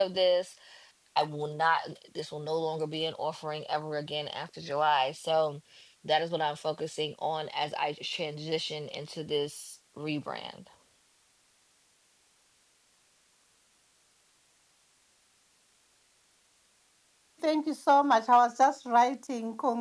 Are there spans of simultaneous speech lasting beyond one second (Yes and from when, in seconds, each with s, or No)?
No